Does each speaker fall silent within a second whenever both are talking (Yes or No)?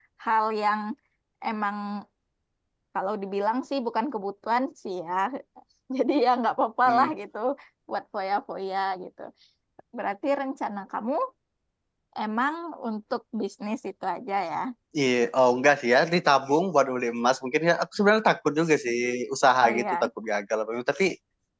Yes